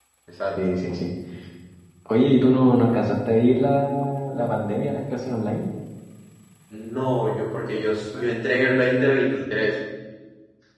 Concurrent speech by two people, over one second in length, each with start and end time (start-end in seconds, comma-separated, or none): none